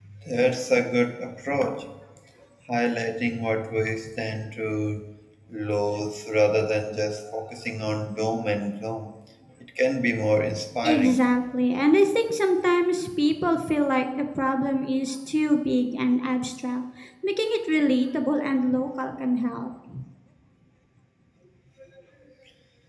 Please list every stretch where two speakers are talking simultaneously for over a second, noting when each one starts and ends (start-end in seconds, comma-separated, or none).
none